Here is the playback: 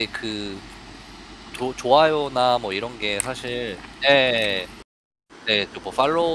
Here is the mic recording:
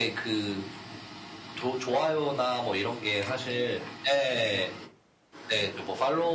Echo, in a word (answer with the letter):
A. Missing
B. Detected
B